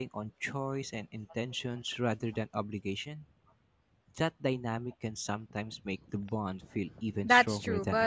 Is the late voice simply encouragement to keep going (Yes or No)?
No